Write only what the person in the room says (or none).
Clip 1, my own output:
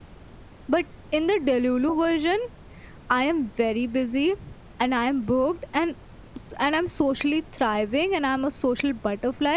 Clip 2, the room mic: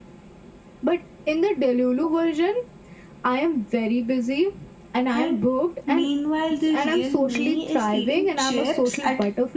And meanwhile, the real me is eating chips at